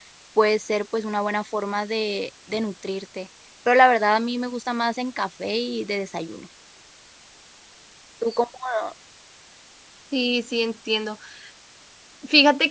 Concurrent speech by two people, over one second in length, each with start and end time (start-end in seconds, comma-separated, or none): none